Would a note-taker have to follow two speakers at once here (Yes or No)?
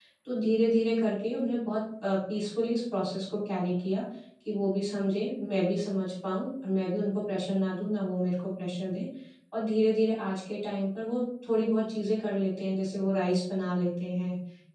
No